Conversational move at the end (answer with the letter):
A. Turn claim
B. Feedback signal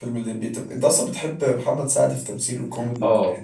A